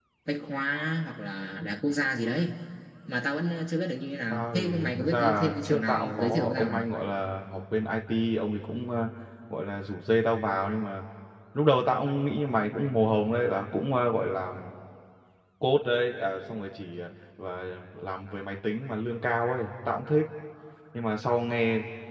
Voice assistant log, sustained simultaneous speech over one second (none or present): present